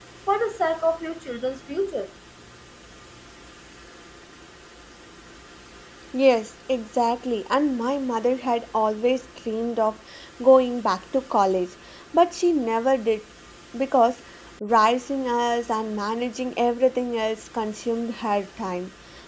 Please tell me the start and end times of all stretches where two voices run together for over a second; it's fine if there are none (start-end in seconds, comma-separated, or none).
none